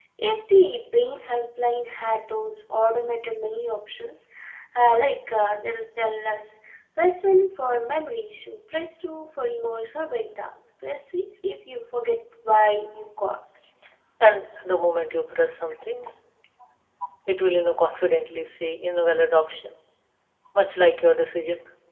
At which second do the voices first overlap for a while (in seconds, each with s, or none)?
none